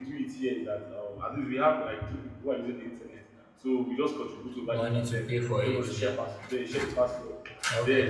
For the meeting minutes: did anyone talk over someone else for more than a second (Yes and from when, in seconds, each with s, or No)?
No